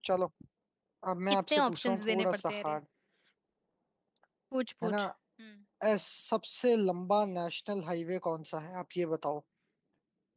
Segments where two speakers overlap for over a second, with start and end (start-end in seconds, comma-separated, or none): 1.5-2.8